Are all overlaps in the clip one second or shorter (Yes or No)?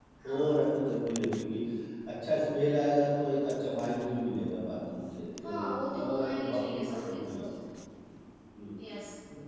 No